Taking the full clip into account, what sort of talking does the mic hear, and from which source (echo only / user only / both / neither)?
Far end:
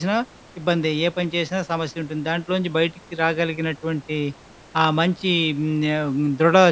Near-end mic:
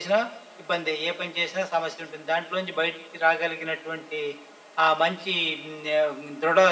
echo only